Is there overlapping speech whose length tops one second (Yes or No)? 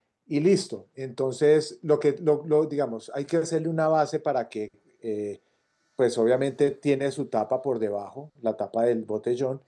No